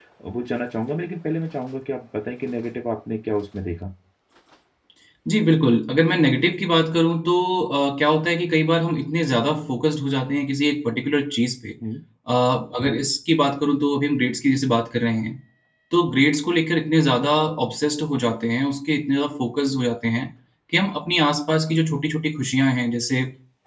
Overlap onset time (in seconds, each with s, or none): none